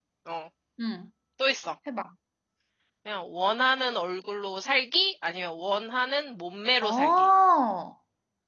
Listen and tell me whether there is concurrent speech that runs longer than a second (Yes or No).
No